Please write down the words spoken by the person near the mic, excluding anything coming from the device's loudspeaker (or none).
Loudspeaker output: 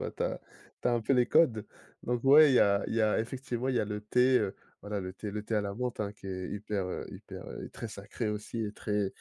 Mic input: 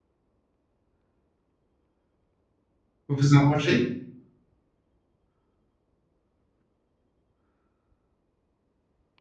Vous en mangez?